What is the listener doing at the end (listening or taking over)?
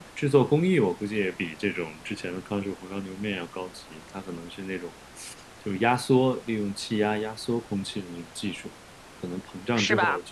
listening